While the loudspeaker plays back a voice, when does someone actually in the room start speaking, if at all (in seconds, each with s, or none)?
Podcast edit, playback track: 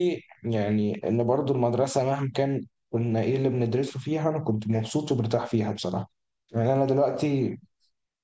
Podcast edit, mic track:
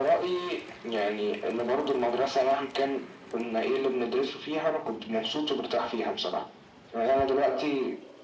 none